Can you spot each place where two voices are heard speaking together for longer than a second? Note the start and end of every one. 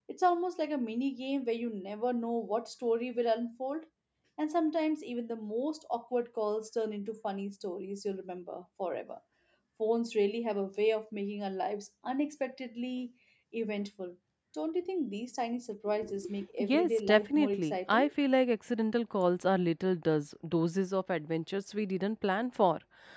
16.6-18.1

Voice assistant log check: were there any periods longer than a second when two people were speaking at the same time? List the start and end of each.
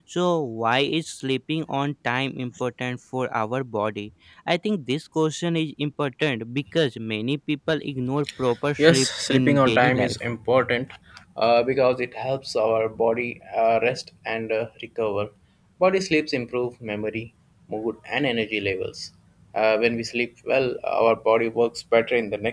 8.8-10.2

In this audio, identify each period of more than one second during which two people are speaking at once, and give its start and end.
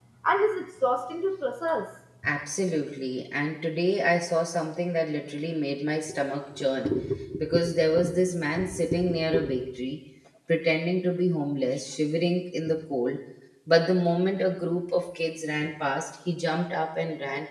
none

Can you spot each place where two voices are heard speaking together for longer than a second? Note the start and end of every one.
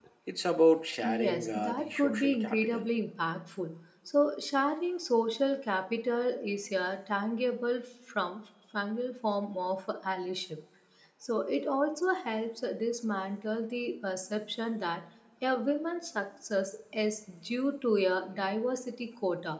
1.0-2.9

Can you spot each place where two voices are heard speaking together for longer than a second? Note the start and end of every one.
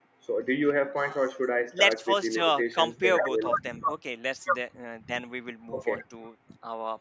1.8-3.5

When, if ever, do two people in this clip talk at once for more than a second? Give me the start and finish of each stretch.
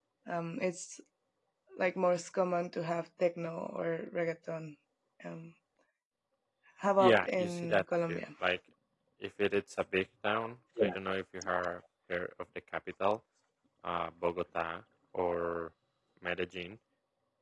7.0-8.2

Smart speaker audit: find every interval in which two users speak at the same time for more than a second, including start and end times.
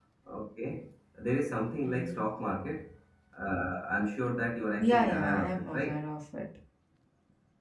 4.8-6.0

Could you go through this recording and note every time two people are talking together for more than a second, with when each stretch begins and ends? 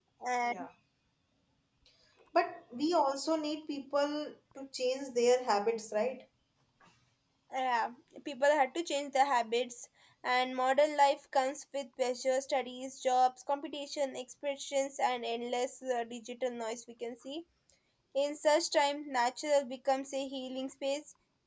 none

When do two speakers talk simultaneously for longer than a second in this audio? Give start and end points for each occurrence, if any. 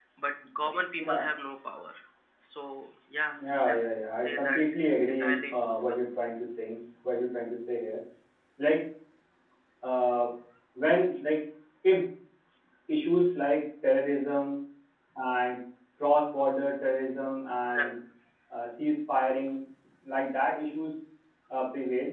4.2-6.0

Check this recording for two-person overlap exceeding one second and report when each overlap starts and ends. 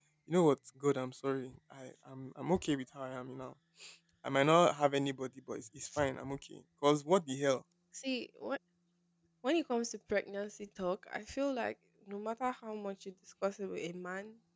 none

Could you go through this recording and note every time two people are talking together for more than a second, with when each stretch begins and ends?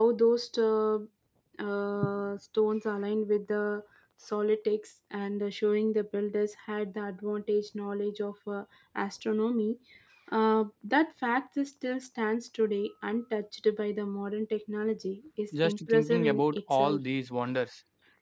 15.6-17.0

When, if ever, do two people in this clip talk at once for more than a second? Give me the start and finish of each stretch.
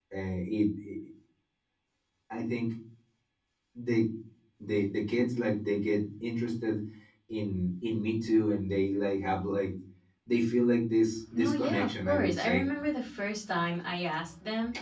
11.3-12.6

